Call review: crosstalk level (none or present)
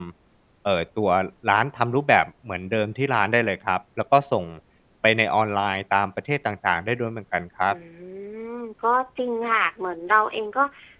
none